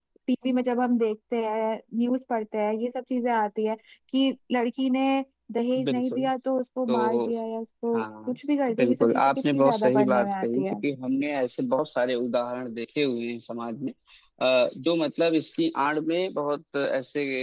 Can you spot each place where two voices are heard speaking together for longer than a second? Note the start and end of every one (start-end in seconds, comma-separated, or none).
8.8-10.8